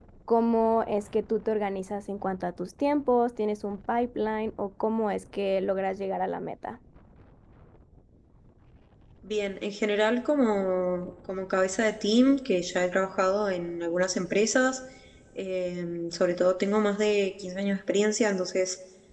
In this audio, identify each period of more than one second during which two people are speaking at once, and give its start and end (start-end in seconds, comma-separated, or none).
none